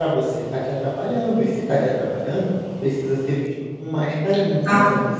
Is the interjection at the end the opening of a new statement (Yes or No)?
Yes